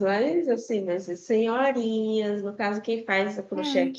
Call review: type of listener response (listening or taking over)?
listening